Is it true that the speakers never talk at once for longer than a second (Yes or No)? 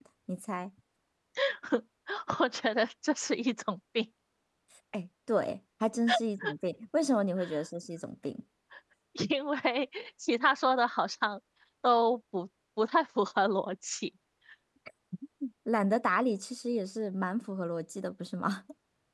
Yes